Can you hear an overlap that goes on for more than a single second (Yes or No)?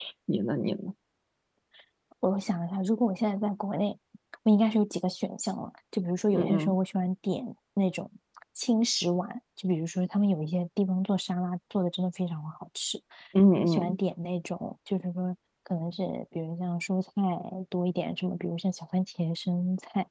No